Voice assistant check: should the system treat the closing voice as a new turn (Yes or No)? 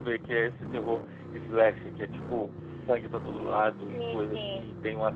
No